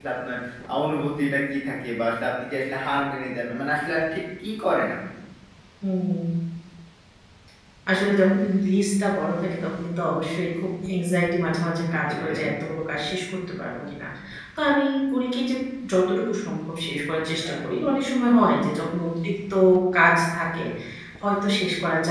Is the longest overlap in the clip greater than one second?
No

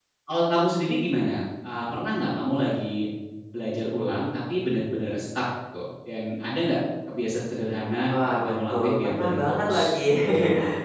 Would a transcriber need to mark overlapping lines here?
Yes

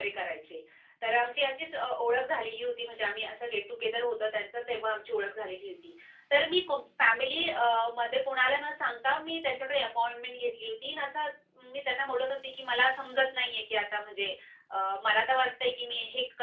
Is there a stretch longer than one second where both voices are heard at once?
No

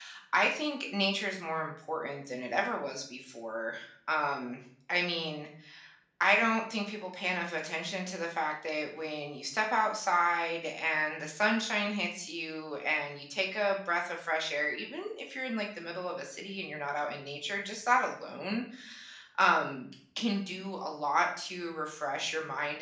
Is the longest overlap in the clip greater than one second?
No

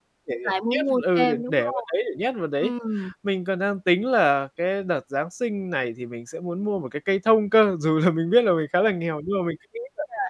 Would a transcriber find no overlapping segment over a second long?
No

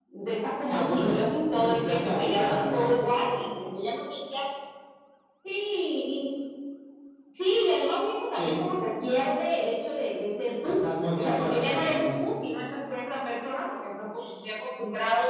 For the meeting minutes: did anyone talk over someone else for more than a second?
Yes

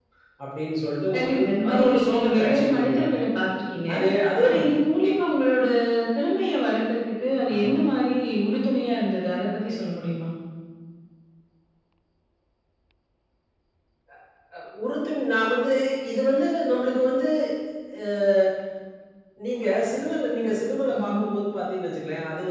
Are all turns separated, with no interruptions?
No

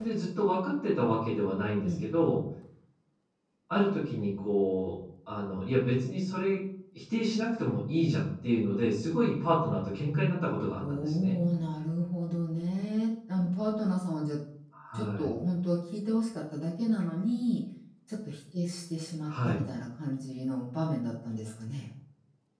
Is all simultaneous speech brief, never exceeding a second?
Yes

